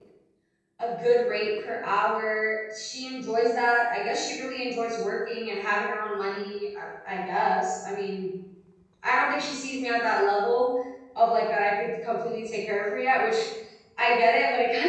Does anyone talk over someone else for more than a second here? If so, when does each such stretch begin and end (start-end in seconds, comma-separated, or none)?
none